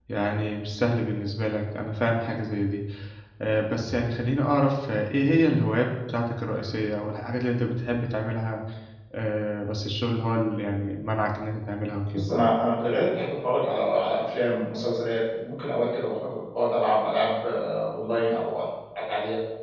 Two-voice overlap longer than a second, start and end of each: none

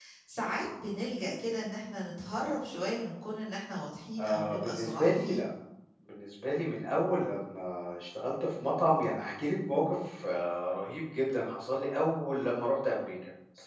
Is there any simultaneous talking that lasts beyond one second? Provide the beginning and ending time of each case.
4.2-5.4

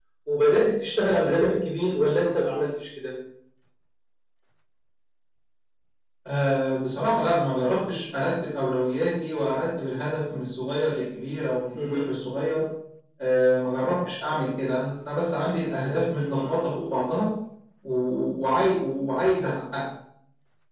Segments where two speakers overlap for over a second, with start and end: none

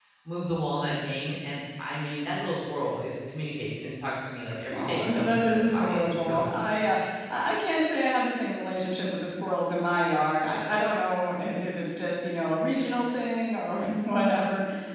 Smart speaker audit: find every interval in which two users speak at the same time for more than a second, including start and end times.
4.7-6.7

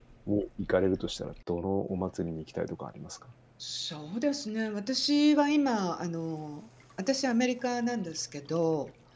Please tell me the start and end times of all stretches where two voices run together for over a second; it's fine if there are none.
none

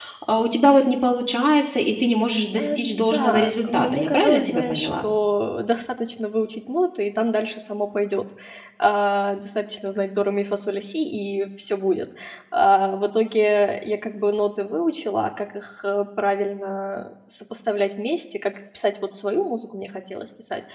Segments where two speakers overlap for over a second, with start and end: 2.6-5.0

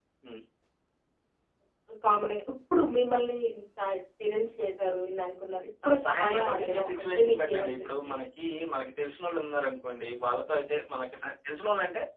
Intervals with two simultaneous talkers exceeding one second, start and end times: 5.9-8.1

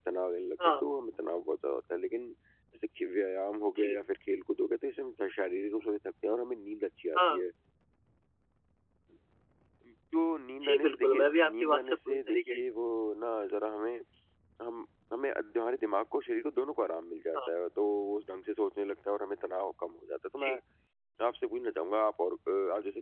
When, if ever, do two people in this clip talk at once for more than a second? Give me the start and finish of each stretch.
10.6-12.6

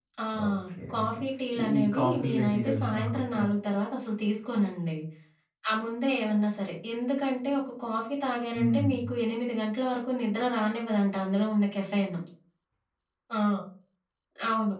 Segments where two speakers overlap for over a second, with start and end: 1.6-3.4

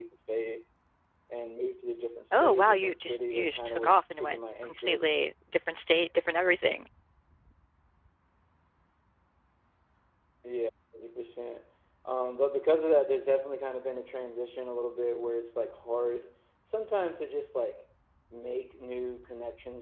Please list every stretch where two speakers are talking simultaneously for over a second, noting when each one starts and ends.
2.3-5.1

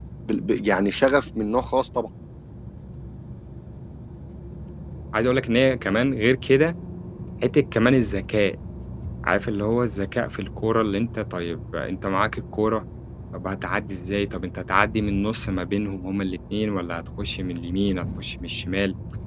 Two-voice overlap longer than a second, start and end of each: none

